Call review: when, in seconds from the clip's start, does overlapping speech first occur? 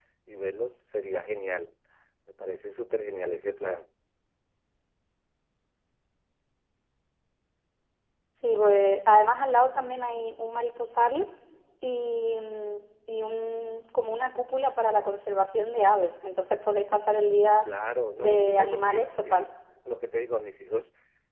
18.2 s

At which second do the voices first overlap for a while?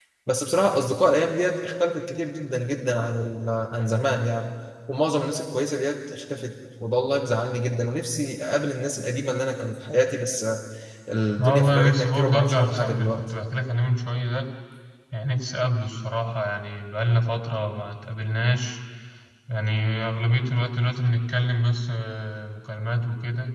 11.4 s

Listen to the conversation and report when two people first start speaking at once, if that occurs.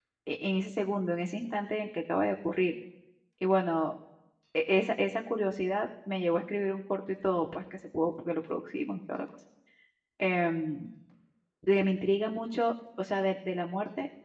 none

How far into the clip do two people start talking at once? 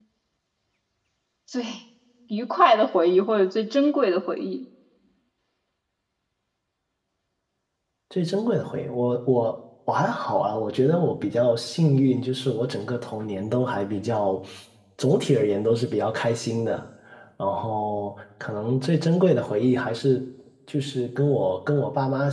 none

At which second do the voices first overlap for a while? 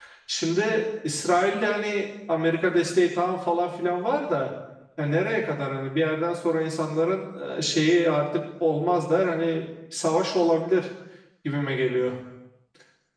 none

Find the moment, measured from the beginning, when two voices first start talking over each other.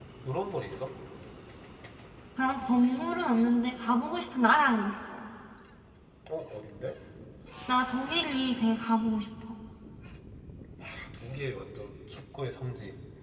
none

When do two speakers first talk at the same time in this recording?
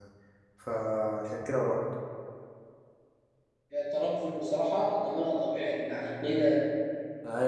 none

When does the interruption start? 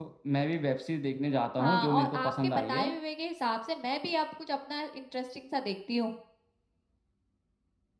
1.6 s

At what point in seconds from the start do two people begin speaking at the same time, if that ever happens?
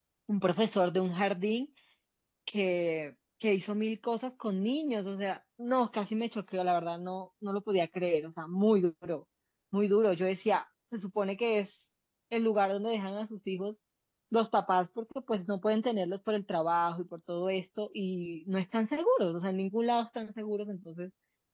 none

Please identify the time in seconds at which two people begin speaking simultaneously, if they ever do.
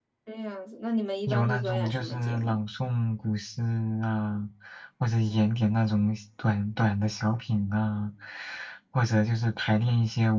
1.3 s

